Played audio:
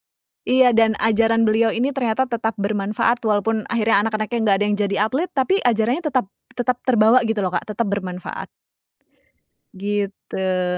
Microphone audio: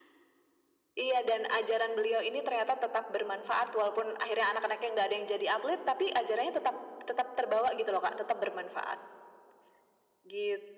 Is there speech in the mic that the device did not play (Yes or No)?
No